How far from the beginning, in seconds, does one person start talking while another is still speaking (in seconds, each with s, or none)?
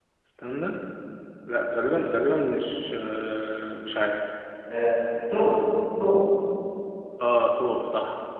none